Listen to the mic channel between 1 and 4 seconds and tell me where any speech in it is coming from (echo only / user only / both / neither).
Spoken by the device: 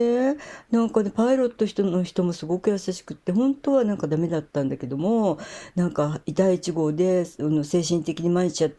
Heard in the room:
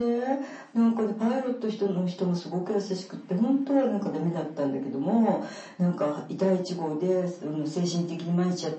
echo only